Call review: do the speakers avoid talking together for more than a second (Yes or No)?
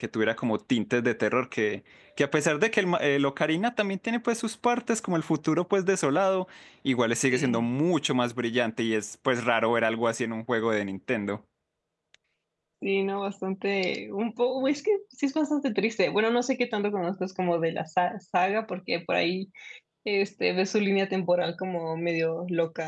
Yes